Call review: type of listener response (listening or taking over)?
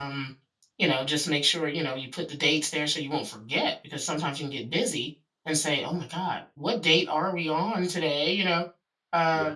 listening